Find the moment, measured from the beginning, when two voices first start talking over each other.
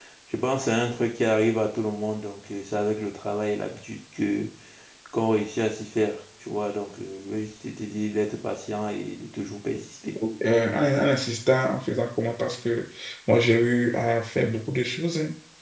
none

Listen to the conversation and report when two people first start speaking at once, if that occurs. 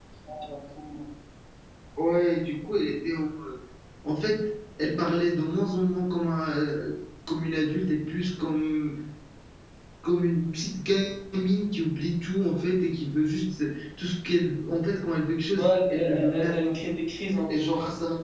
15.6 s

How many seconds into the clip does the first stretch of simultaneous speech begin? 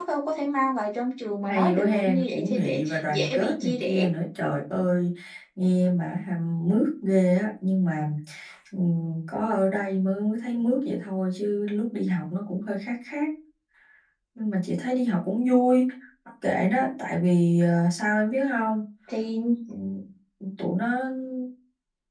1.5 s

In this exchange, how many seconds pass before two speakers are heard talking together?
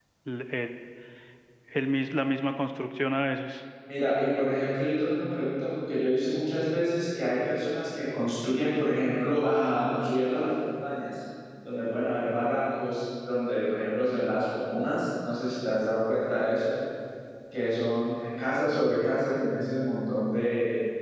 none

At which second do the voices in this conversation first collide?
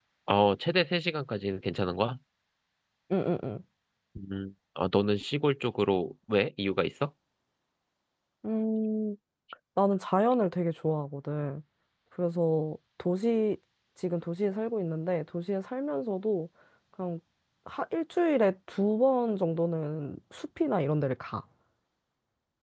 none

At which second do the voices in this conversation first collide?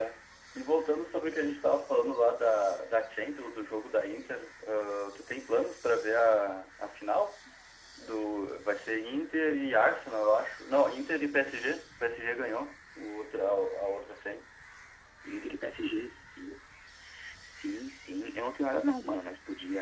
none

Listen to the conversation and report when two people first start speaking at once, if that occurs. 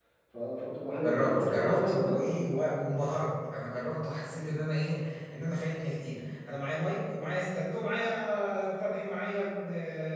1.0 s

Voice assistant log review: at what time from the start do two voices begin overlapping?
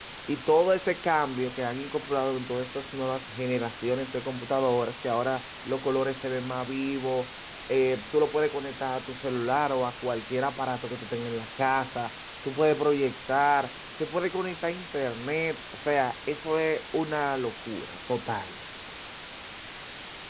none

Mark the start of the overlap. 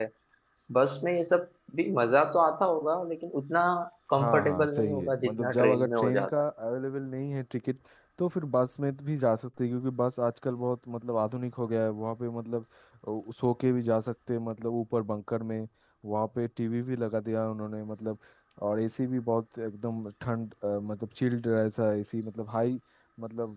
4.2 s

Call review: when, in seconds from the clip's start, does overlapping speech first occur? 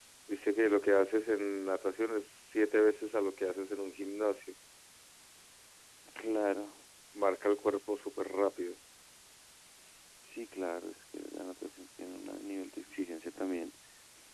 none

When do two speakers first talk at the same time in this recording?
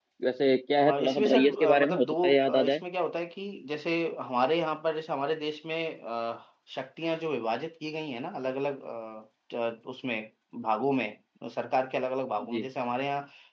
0.8 s

